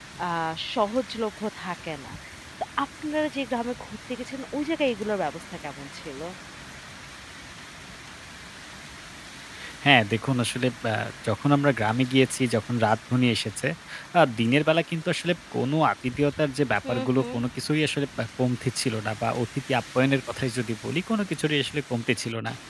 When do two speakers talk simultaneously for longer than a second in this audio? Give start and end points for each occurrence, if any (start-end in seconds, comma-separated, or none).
none